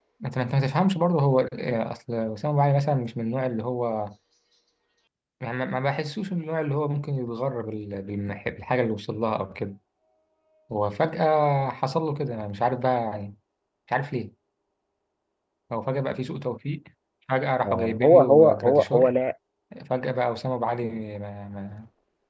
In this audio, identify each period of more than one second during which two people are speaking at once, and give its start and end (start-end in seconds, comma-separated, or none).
17.6-19.1